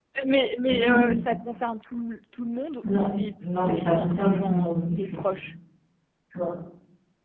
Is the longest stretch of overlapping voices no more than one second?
No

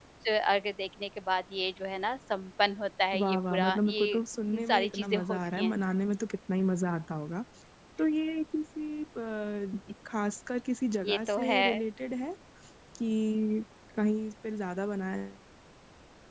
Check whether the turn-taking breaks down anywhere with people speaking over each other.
Yes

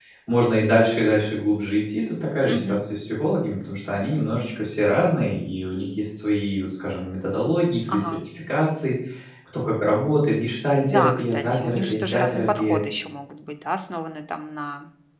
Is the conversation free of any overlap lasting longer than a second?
No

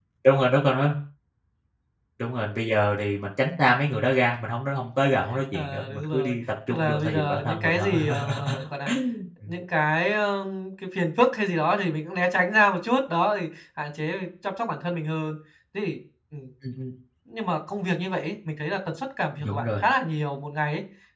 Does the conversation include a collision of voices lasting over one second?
Yes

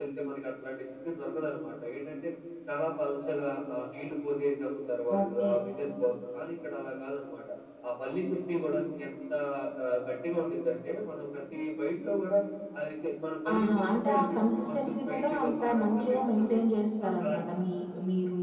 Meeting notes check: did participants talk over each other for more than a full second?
Yes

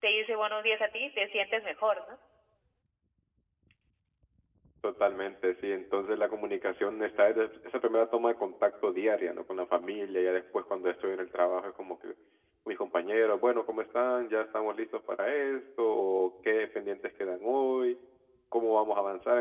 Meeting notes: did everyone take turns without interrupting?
Yes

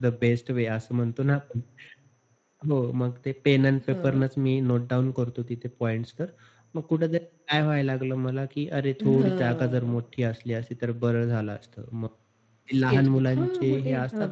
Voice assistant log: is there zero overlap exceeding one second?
No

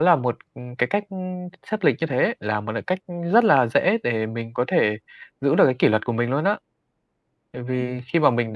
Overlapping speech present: No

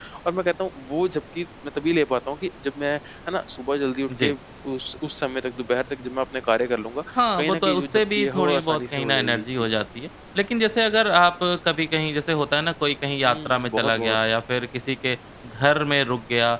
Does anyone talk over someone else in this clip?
Yes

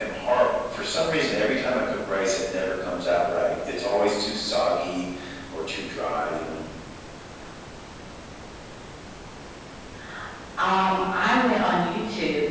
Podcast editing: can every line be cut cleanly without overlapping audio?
Yes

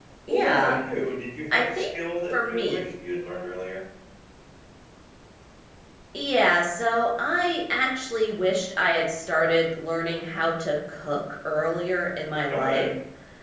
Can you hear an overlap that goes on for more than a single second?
No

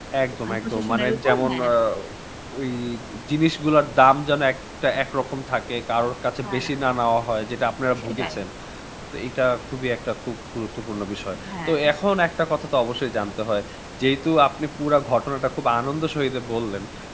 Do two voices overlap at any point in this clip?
Yes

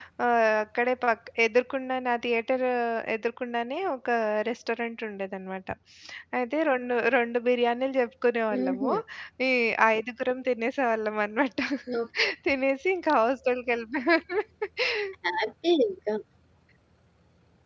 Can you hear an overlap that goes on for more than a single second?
No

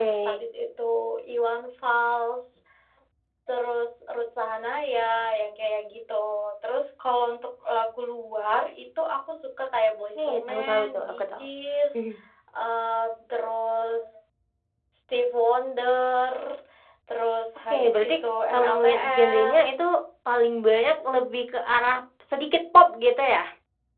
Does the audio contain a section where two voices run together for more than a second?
Yes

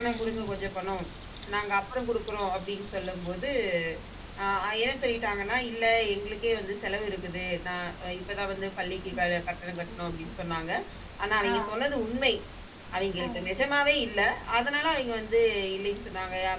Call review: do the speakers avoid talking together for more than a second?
Yes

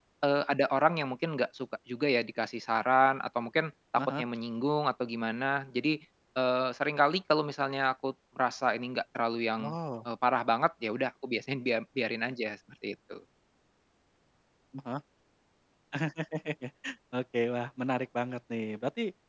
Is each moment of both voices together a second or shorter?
Yes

